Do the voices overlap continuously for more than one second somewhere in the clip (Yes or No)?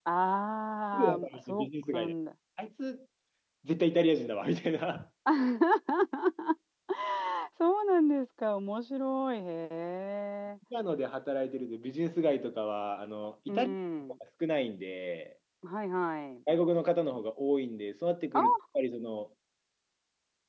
Yes